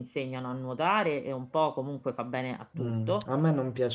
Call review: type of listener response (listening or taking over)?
taking over